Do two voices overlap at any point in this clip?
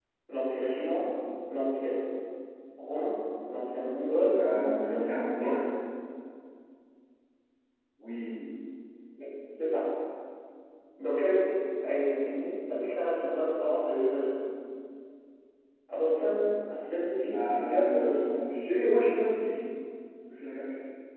Yes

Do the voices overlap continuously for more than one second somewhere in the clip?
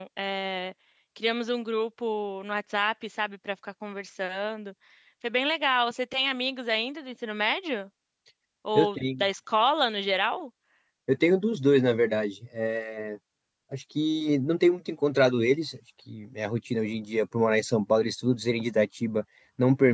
No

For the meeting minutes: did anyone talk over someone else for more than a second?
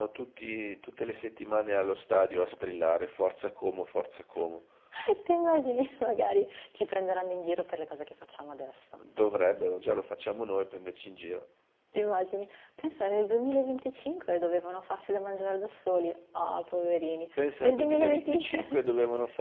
Yes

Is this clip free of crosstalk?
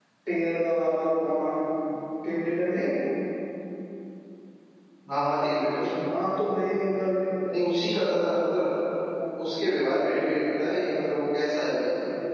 Yes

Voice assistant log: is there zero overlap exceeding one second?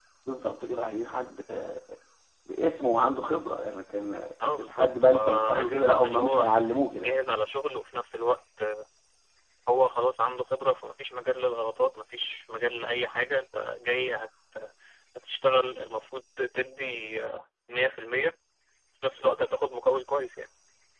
No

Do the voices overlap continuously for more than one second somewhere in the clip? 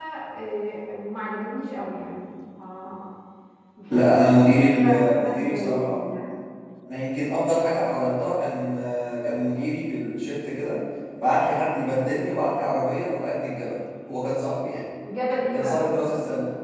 Yes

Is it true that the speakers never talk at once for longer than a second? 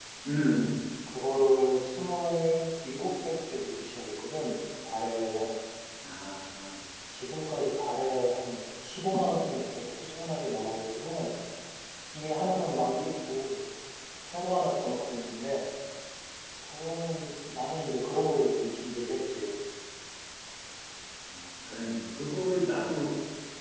Yes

